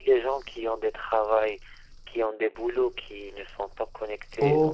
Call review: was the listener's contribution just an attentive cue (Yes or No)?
No